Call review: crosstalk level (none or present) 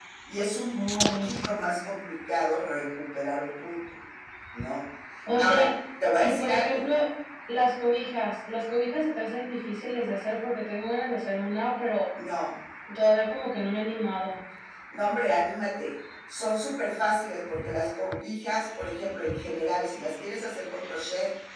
present